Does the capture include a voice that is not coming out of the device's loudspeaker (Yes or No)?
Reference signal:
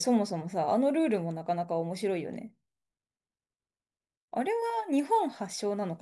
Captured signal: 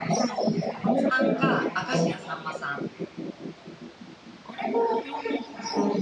Yes